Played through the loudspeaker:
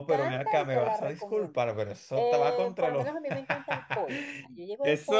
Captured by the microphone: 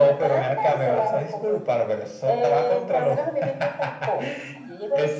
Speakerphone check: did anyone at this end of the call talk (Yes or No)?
No